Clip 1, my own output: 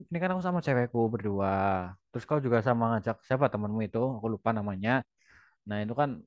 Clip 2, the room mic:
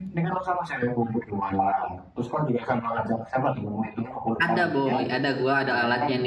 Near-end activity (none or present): present